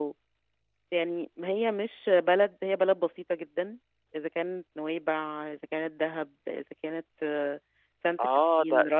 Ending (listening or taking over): taking over